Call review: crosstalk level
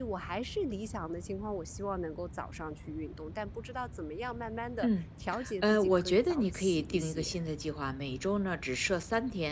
present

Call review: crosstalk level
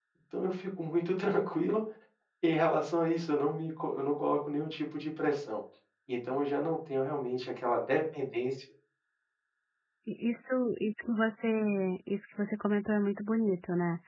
none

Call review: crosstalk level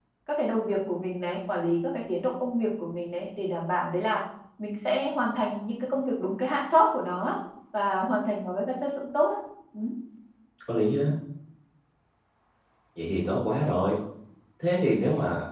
none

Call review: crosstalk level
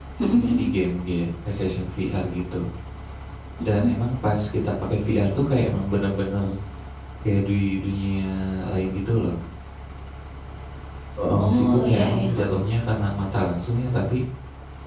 present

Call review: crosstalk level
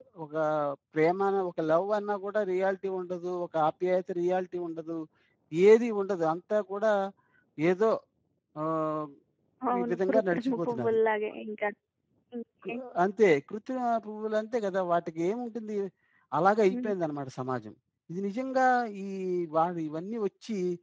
present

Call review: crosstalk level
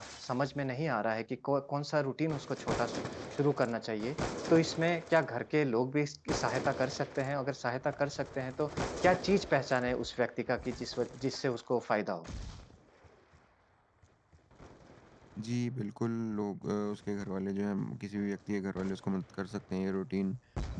none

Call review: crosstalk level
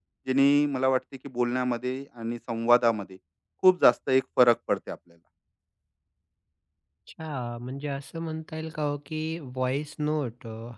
none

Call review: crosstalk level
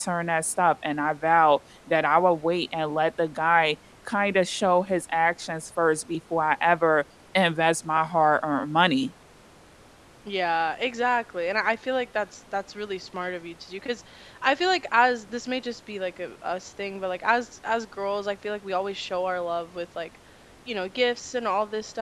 none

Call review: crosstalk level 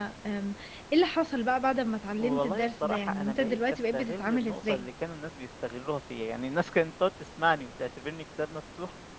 present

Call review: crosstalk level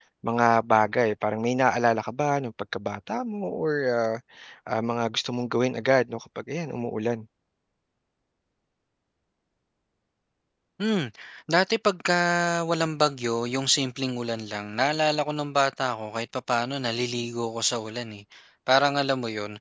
none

